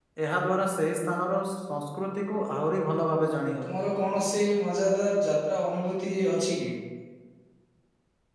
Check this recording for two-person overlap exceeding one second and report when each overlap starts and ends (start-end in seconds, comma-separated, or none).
none